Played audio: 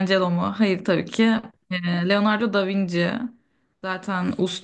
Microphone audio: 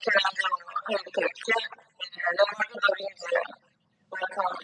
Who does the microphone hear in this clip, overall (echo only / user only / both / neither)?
echo only